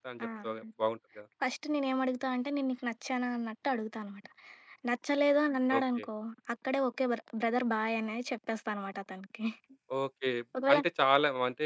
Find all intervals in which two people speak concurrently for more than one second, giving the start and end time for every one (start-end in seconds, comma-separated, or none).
none